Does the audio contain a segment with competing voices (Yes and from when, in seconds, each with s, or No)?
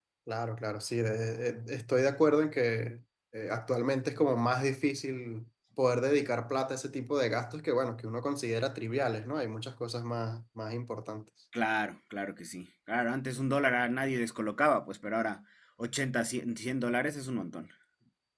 No